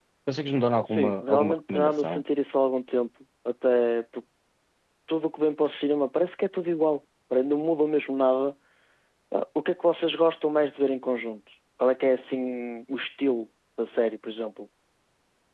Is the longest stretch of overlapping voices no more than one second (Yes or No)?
No